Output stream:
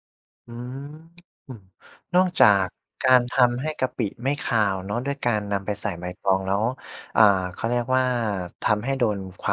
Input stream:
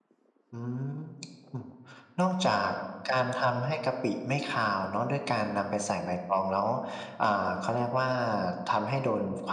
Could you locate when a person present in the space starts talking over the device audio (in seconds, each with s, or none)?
none